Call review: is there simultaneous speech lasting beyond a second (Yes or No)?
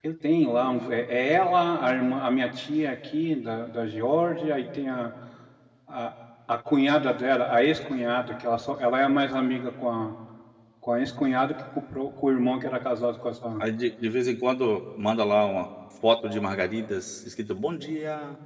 No